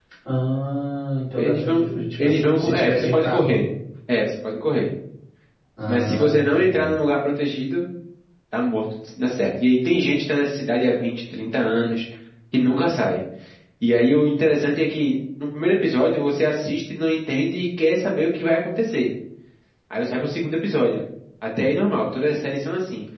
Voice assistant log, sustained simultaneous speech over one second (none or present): present